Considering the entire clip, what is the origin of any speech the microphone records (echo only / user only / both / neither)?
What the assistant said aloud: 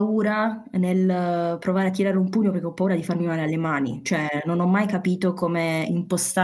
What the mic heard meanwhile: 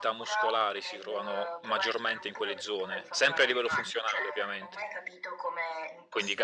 both